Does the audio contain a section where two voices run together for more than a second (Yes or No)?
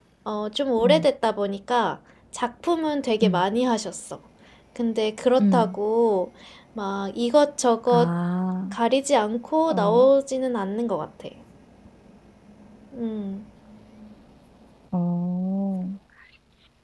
No